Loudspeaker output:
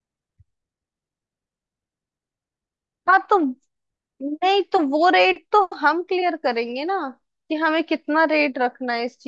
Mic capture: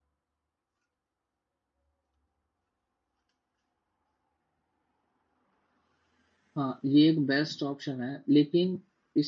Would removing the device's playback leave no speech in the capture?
No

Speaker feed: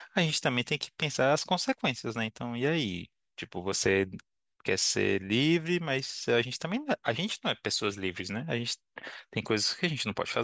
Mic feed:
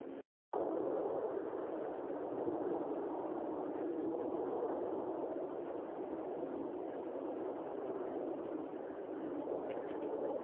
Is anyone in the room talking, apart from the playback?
No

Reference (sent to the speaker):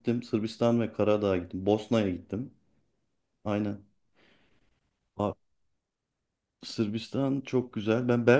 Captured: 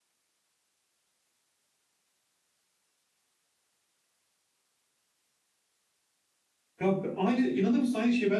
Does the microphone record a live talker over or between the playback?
Yes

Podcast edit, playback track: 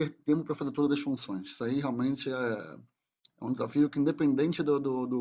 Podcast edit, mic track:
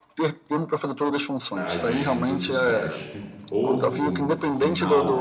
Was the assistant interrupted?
Yes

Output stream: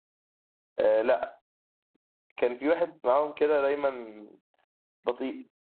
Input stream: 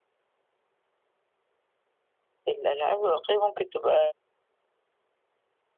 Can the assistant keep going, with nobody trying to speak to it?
No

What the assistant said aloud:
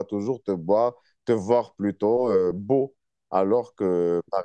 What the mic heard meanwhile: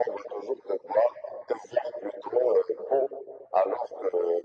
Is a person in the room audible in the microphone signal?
No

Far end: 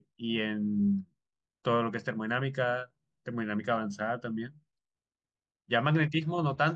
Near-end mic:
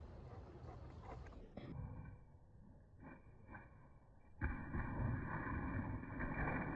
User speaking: No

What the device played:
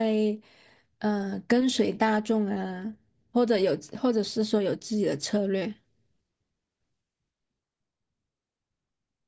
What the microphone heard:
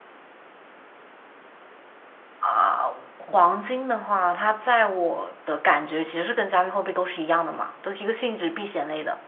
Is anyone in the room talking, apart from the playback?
Yes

